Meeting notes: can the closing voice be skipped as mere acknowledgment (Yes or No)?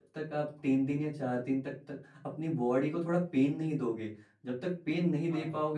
Yes